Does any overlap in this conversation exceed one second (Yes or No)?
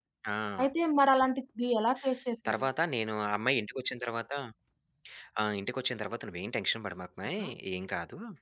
No